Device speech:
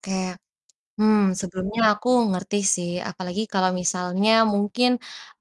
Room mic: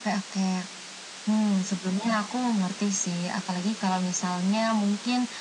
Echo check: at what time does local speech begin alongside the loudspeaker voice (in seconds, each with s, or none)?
none